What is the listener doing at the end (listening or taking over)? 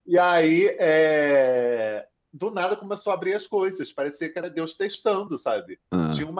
listening